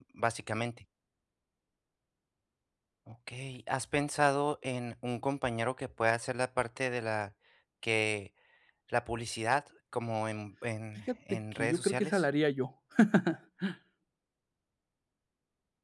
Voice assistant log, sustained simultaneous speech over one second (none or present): present